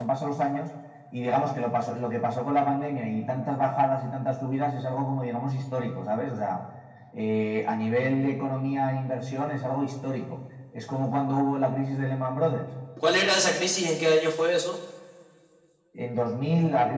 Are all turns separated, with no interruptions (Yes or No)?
Yes